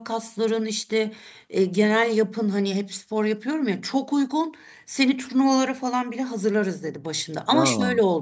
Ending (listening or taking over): listening